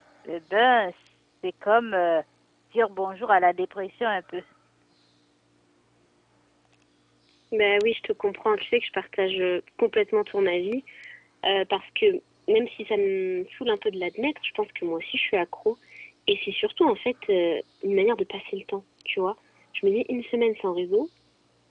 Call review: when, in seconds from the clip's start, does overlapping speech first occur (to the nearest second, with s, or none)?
none